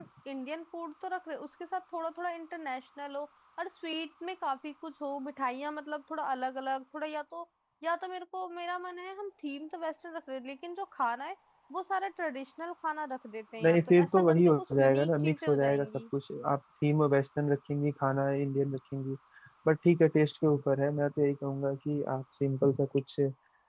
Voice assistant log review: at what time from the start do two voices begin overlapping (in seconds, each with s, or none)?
13.6 s